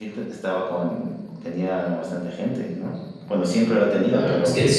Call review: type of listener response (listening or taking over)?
taking over